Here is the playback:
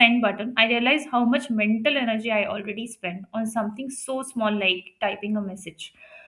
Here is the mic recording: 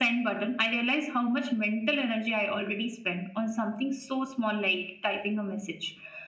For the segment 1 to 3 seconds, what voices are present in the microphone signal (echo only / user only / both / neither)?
echo only